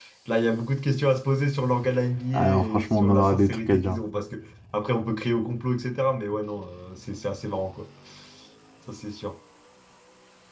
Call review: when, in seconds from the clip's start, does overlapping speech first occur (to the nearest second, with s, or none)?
2 s